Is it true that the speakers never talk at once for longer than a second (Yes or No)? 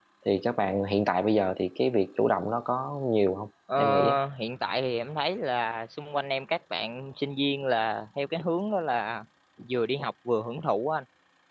Yes